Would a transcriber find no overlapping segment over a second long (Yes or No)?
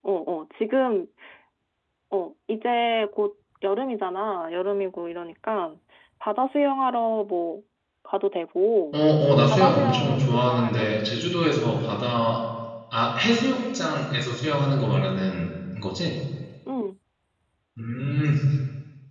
No